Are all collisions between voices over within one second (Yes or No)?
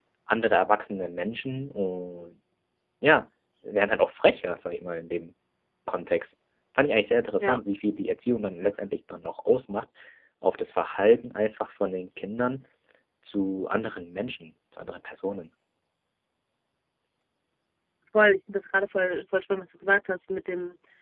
Yes